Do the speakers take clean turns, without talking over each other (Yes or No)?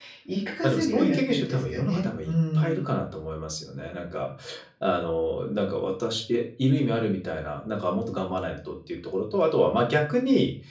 No